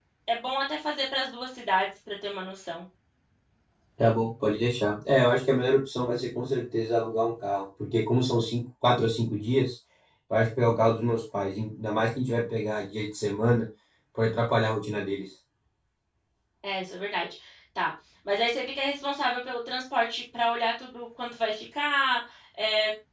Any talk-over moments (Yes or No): No